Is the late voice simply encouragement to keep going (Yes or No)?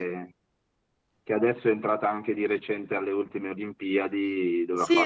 No